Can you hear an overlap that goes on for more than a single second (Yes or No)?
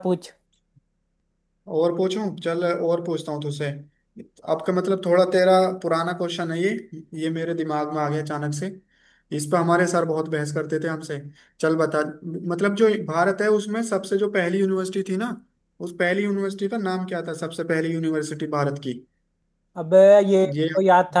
No